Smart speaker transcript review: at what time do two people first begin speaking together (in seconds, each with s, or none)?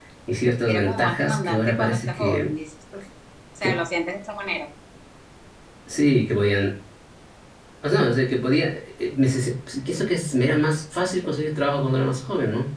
0.7 s